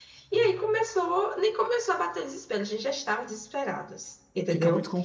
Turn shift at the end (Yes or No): Yes